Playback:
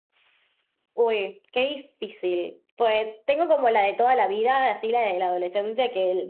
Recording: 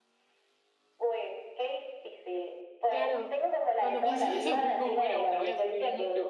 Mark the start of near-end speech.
2.9 s

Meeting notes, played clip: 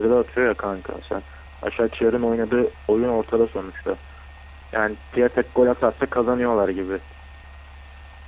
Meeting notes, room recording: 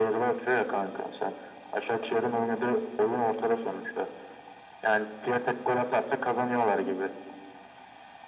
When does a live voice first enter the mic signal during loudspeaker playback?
none

